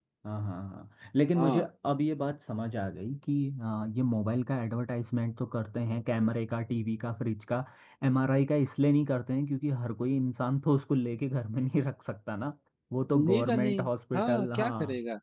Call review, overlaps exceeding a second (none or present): present